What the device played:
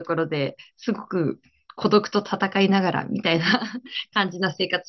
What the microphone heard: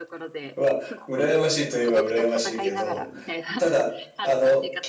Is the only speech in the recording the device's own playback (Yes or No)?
No